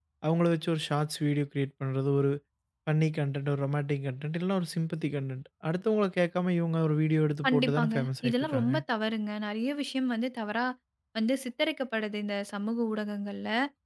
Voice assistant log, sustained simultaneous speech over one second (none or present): present